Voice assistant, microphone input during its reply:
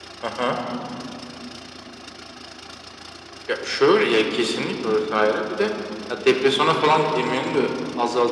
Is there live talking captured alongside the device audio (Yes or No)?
No